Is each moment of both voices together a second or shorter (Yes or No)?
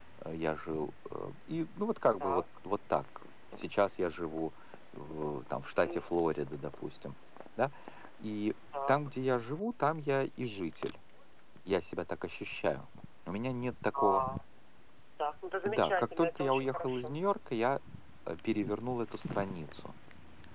No